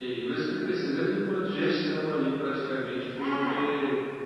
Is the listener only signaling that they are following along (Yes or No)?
Yes